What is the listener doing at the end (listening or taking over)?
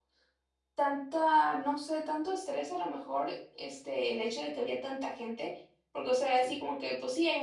listening